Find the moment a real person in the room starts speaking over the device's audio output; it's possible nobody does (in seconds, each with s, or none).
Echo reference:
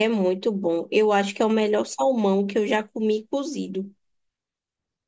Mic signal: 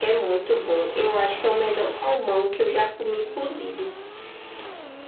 none